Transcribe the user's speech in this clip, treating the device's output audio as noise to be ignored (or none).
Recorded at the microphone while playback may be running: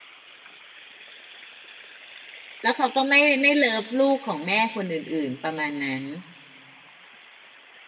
แล้วเขาก็ไม่ไม่เลิฟลูกของแม่คนอื่นๆประมาณนั้น